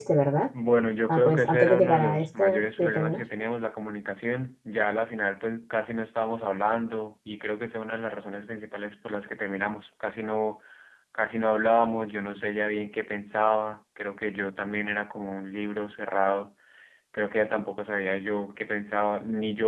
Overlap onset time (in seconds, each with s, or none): 1.1 s